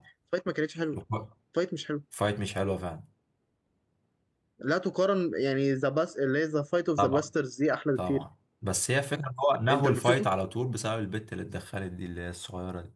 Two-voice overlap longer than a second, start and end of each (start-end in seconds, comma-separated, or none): none